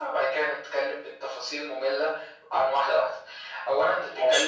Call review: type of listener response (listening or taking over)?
listening